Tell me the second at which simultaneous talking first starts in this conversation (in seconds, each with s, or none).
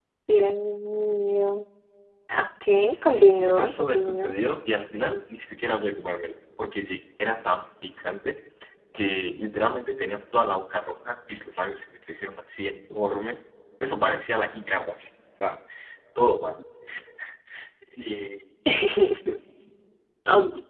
3.0 s